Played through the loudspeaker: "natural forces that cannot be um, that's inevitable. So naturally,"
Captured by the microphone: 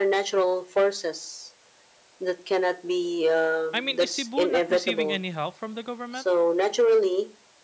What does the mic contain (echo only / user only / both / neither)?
both